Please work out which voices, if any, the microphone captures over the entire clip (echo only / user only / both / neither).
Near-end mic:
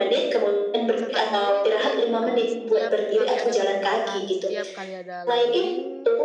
both